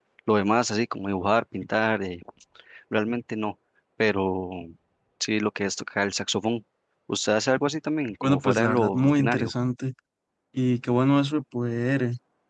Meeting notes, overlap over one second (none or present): present